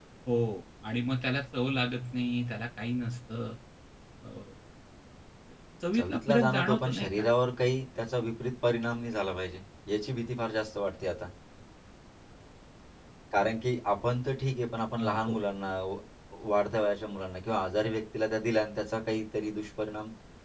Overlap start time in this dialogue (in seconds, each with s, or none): 6.0 s